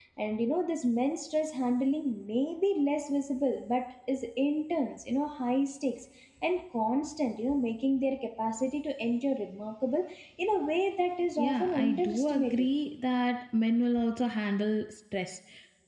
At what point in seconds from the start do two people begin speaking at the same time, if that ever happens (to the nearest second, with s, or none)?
11 s